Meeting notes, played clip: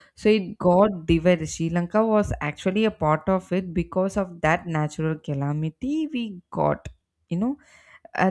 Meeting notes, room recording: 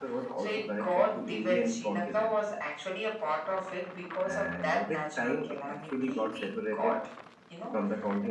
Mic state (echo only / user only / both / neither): both